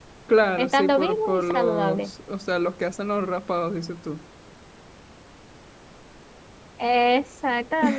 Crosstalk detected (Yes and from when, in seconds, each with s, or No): Yes, from 0.6 s